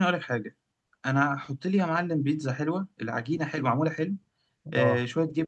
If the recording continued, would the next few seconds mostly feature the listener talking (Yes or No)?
No